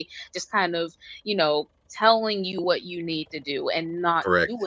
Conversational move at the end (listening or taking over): listening